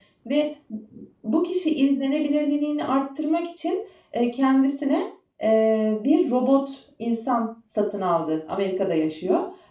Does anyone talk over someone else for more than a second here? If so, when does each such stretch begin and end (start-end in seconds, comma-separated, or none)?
none